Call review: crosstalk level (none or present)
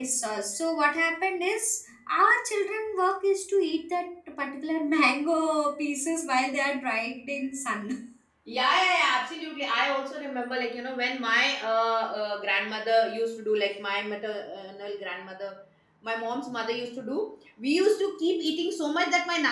none